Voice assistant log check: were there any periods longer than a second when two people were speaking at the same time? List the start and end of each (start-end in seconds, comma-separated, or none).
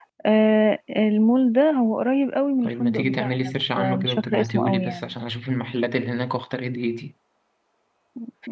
2.6-5.1